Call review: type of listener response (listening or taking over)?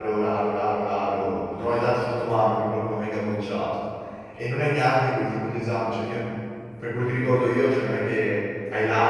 listening